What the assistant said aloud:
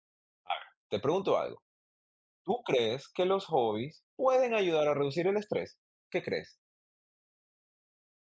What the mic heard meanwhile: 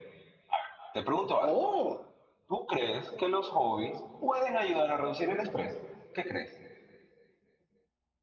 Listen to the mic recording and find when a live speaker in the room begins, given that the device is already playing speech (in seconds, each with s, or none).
1.4 s